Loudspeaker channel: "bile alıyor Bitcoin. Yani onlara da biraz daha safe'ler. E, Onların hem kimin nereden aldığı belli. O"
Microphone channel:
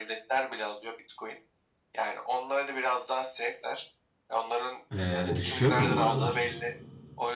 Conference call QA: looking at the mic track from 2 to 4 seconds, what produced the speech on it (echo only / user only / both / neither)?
echo only